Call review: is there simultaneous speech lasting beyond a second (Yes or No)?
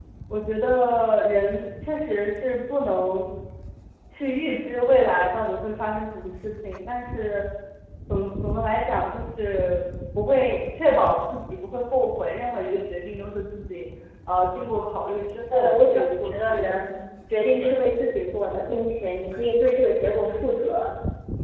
Yes